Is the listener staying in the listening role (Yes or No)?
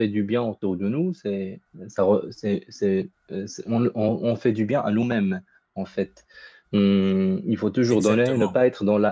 Yes